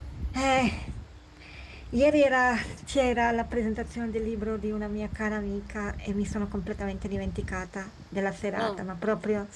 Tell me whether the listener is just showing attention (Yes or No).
Yes